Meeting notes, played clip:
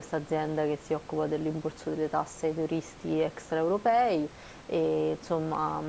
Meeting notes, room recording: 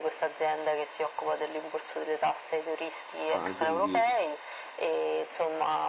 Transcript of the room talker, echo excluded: Ah, quindi,

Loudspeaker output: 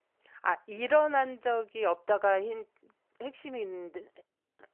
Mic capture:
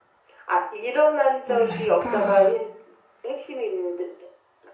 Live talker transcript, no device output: 뭘할까?

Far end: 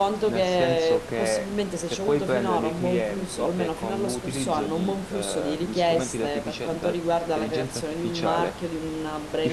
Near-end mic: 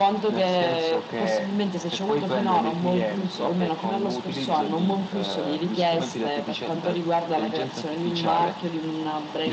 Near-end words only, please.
none

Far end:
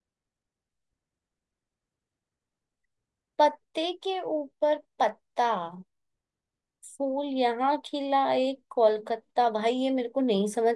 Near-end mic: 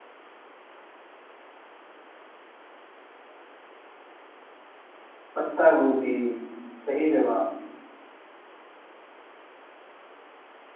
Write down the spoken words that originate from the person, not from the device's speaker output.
पत्ता गोभी सही जवाब

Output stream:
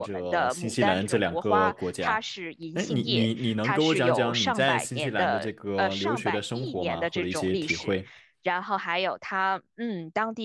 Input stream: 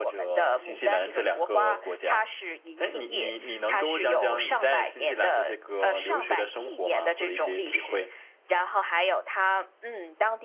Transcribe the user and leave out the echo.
none

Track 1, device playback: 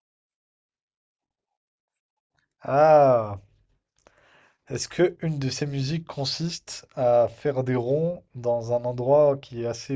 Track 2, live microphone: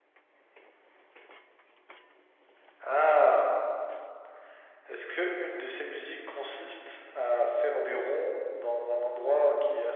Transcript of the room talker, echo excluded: none

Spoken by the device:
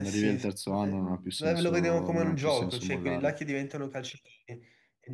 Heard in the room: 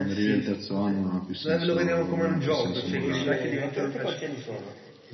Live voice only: Eh sì, invece, ma te- a te quanti anni sono?

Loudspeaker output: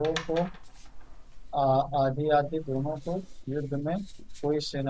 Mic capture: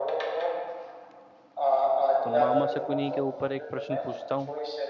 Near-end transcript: तो मामा शकुनी के ऊपर एक प्रश्न पूछता हूँ

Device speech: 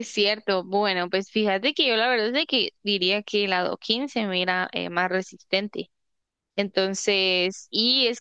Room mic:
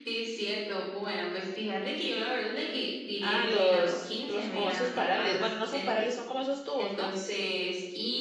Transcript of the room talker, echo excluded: Ah, los, los como esos parales. Bueno, no son parales, son como esos tubos, ¿no?

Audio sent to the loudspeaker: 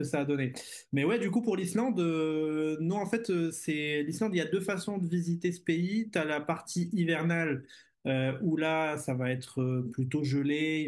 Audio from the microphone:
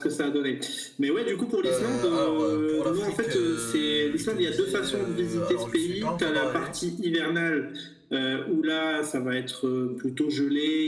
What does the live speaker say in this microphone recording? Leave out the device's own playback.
Euh, alors, euh, pour l'Afrique, euh, je te dis, euh, alors je suis pas encore allé.

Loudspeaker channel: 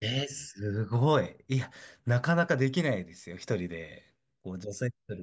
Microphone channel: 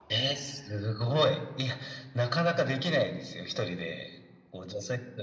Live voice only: none

